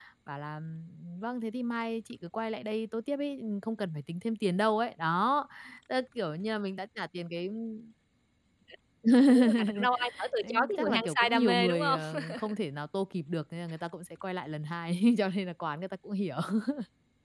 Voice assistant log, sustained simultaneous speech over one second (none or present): present